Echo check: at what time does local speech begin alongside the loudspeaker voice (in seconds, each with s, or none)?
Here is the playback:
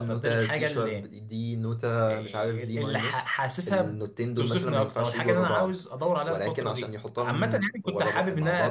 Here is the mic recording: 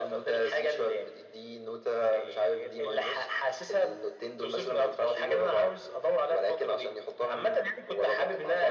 none